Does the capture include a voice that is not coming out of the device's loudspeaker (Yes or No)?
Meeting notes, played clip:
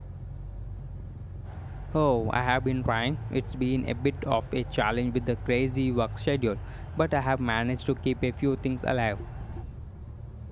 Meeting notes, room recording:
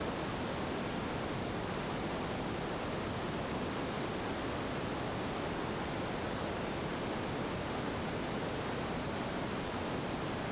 No